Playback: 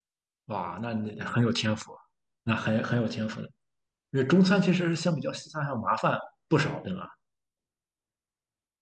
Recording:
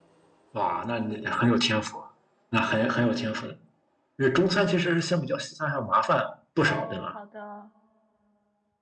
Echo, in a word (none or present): present